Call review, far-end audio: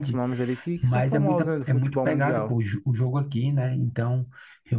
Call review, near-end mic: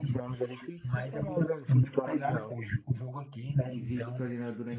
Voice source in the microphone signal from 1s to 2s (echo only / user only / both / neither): echo only